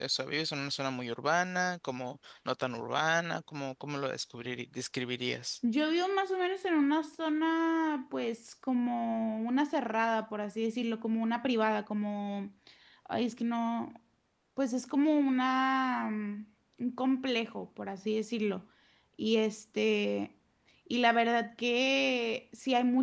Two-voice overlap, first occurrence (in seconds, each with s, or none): none